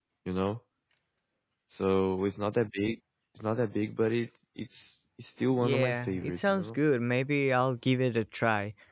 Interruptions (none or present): present